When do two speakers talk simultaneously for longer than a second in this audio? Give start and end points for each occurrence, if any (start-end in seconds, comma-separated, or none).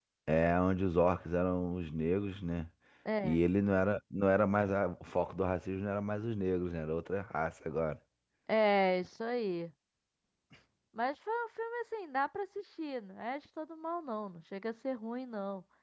none